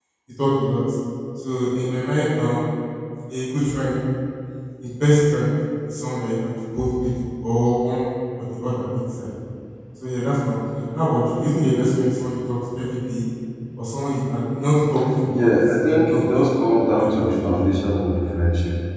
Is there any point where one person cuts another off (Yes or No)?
Yes